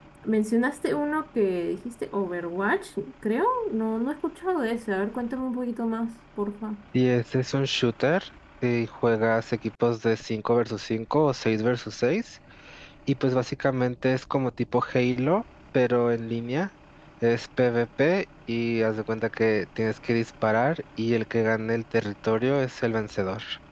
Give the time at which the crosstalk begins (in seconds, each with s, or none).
none